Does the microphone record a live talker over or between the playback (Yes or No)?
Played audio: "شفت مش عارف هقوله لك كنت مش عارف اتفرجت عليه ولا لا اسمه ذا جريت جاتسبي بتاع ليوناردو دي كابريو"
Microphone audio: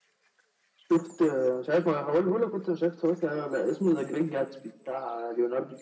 No